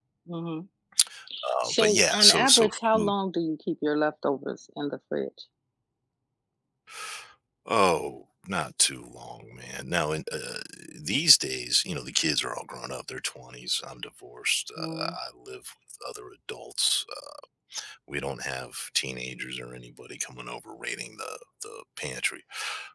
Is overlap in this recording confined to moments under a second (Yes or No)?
No